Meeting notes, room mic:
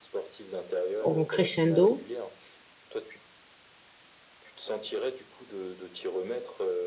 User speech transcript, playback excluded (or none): en crescendo,